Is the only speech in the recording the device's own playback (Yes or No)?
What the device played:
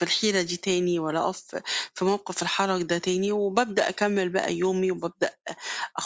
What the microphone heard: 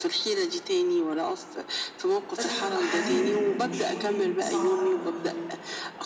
No